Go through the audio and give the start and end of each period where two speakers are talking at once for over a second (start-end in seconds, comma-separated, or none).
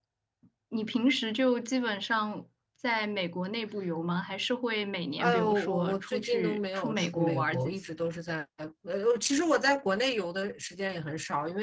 5.2-7.7